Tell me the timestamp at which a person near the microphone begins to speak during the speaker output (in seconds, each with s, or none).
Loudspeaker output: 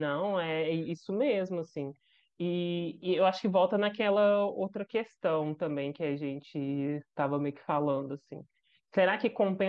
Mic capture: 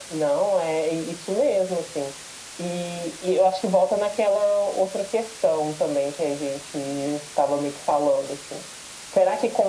none